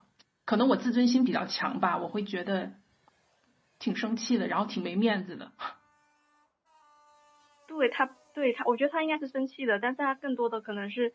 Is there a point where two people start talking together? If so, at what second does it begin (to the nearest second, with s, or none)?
none